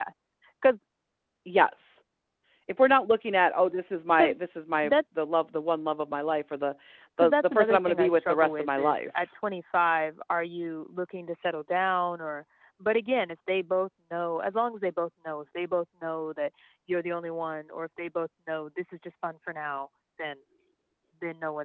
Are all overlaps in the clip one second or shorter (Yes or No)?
No